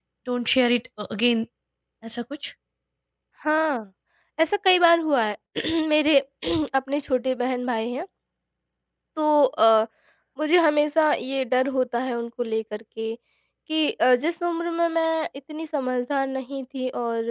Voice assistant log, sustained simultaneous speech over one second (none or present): none